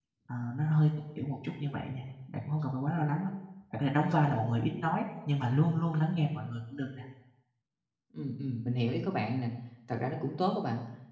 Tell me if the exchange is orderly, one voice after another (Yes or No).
Yes